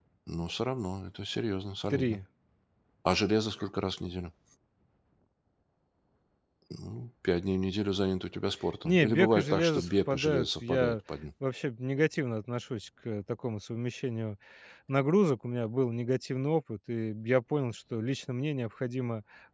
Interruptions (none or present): present